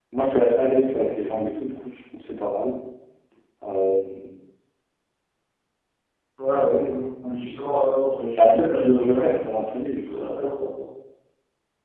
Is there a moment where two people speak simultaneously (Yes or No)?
Yes